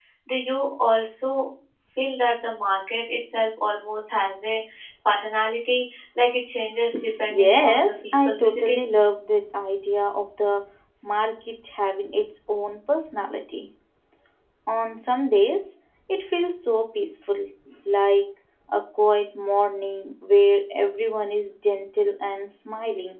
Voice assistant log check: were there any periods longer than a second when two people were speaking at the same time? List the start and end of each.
7.4-8.8

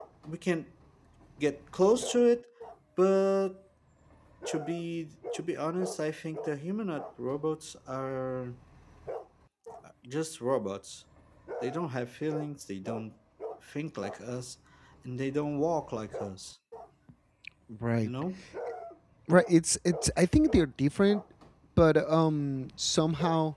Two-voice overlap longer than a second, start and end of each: none

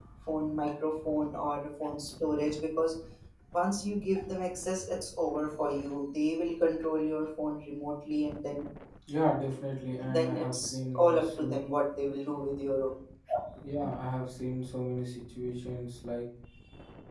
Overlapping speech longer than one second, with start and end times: 10.1-11.6

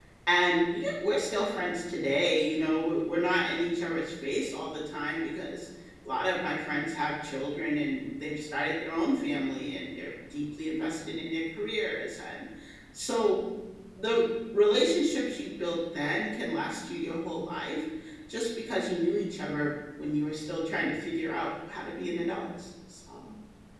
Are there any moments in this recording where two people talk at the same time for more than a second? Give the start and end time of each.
none

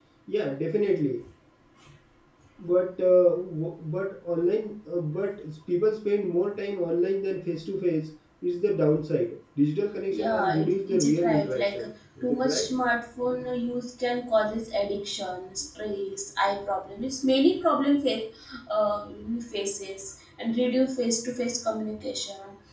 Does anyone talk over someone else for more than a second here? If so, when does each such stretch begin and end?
10.1-11.8

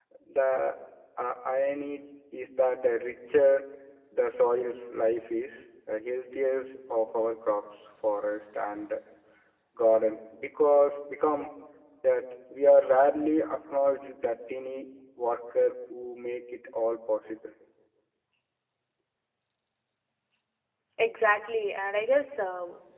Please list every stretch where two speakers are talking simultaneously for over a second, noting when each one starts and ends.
none

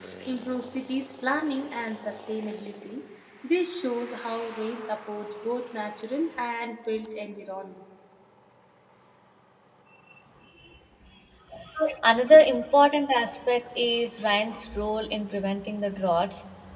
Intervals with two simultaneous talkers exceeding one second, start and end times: none

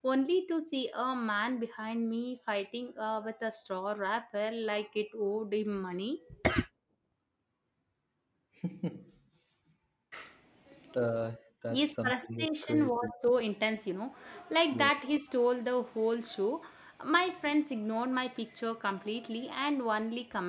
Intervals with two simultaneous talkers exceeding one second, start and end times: 11.7-13.1

